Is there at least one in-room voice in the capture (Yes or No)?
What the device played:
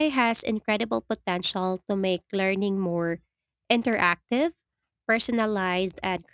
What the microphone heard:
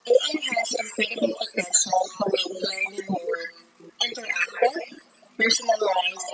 No